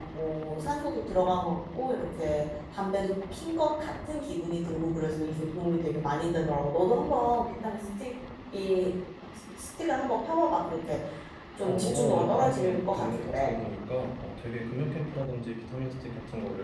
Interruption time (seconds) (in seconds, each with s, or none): 11.7 s